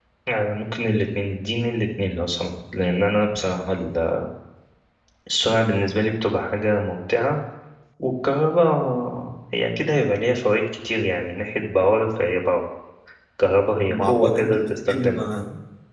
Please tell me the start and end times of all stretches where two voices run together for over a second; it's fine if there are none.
13.9-15.3

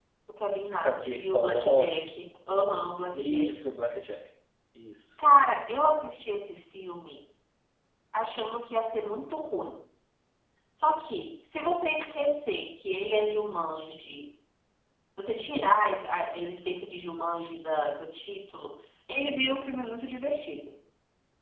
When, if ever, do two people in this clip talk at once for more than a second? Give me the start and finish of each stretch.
0.7-2.2

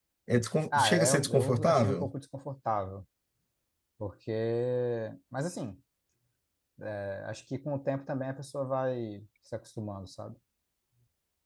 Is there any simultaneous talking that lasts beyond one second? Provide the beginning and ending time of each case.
0.7-2.1

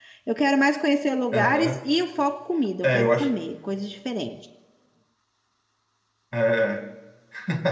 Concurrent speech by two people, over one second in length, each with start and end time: none

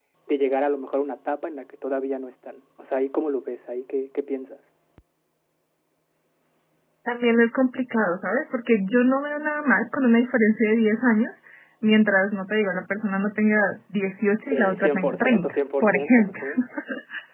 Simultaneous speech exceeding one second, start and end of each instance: 14.5-16.3

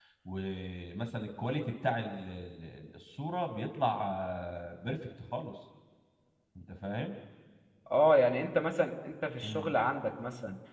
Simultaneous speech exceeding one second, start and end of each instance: none

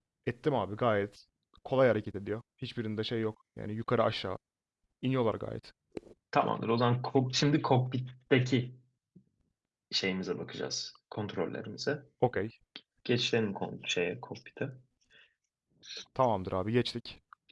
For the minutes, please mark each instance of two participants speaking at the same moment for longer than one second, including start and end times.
none

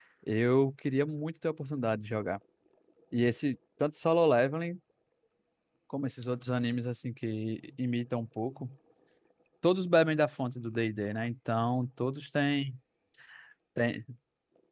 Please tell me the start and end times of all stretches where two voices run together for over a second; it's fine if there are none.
none

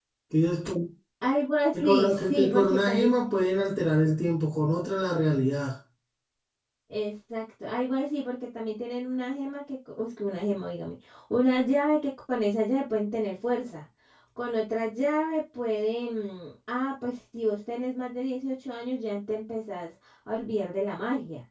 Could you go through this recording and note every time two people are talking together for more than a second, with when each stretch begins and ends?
1.7-3.1

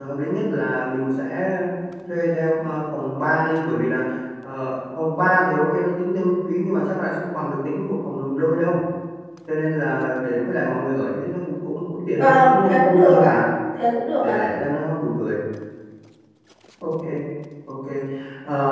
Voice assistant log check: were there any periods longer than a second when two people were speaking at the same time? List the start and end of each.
12.1-13.4

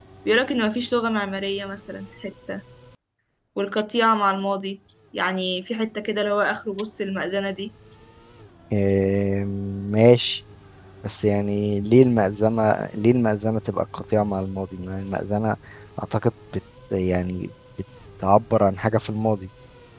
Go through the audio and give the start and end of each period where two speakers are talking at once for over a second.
none

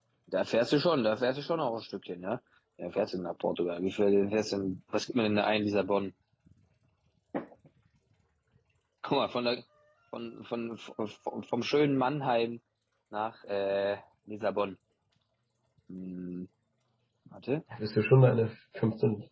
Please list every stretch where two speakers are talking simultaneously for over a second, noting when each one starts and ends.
none

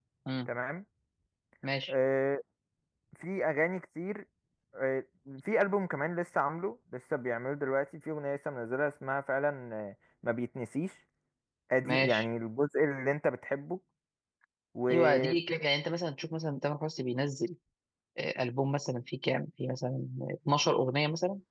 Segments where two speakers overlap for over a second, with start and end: none

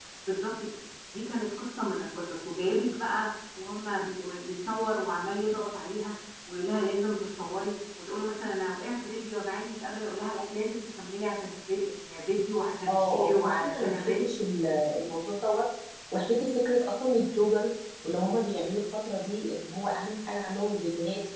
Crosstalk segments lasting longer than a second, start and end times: 12.9-14.2

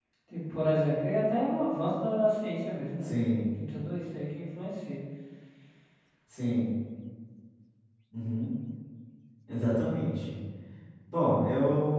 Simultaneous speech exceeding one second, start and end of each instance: none

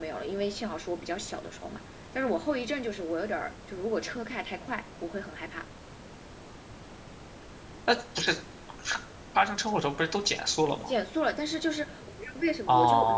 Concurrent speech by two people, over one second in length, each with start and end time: none

